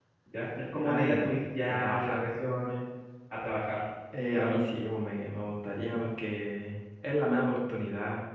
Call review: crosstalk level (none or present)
present